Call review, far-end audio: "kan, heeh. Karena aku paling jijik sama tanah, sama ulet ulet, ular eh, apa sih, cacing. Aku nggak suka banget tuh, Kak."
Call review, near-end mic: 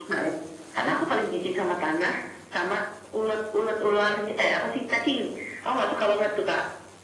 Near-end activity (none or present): none